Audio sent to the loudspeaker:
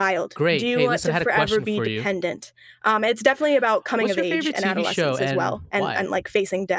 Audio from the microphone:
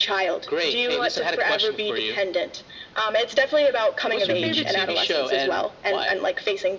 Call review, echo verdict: present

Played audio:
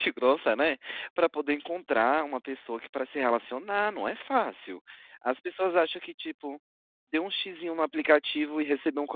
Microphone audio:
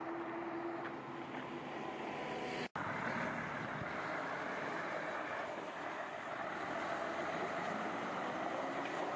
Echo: none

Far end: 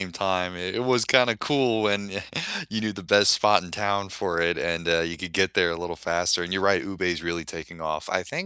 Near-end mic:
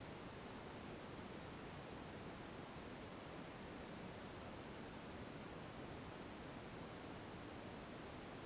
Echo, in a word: none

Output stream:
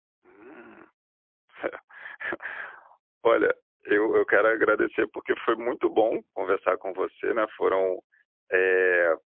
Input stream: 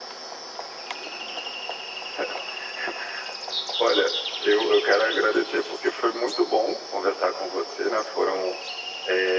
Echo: present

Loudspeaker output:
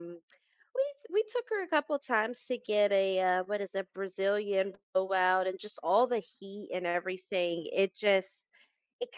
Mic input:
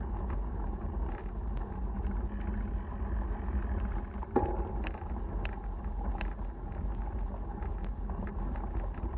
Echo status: none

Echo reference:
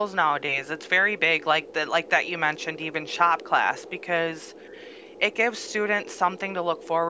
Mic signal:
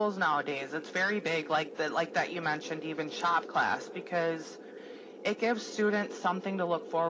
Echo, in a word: present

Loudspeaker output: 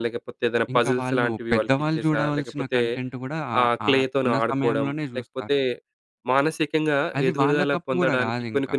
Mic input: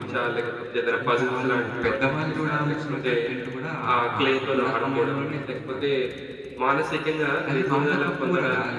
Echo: present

